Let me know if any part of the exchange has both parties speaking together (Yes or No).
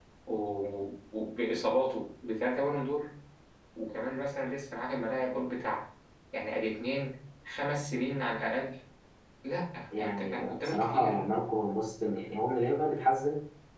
Yes